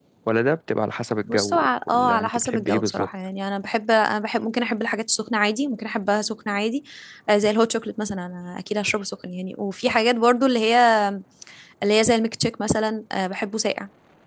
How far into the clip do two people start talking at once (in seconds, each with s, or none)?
1.3 s